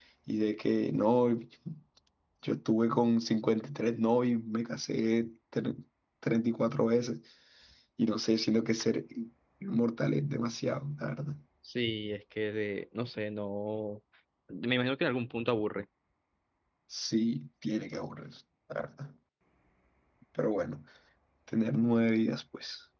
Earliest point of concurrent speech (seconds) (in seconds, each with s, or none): none